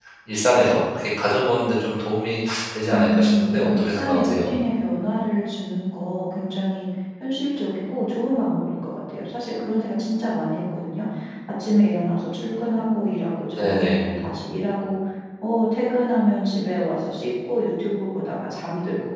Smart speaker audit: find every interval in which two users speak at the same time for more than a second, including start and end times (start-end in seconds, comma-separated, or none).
2.9-4.5